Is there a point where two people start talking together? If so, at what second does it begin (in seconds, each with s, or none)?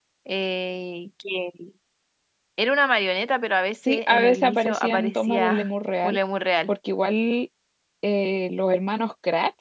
3.9 s